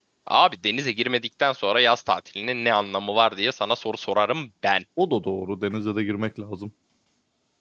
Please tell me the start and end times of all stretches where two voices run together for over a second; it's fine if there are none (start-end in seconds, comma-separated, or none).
none